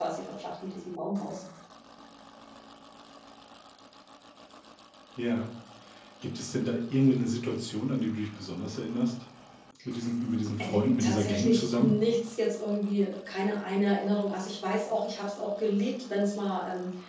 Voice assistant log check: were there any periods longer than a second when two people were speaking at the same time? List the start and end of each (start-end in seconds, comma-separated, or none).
10.6-11.9